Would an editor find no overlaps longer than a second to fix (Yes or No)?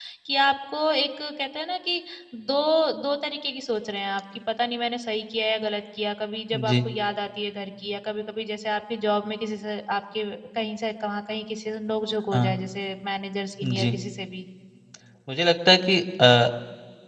Yes